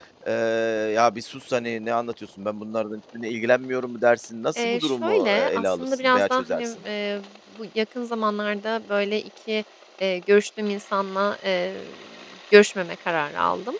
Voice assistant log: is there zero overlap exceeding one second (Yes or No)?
No